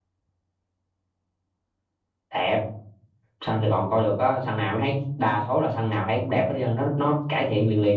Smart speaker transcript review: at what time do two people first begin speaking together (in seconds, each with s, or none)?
none